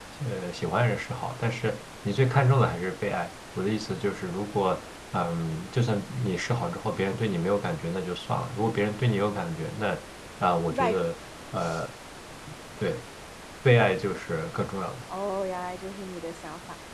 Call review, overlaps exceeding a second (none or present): none